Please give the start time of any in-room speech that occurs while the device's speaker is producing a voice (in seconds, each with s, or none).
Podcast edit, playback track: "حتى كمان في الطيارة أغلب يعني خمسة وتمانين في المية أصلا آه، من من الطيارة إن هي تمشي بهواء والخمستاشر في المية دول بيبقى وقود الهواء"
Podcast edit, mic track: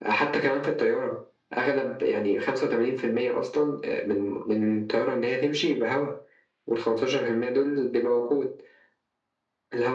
none